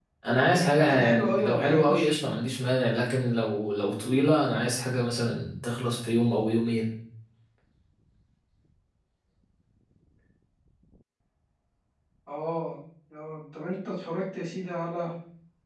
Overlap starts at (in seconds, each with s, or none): 0.5 s